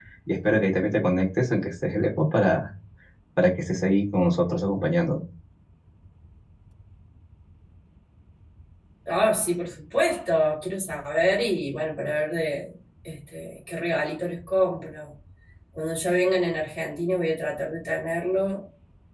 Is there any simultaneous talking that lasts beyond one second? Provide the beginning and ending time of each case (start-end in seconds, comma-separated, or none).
none